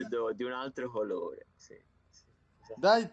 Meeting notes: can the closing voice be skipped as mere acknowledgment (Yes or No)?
No